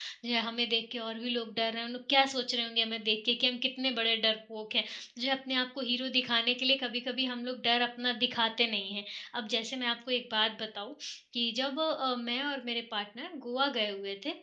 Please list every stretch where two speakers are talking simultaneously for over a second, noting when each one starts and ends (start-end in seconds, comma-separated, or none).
none